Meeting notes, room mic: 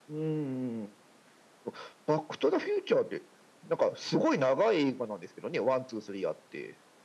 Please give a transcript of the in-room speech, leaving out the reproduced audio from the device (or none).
none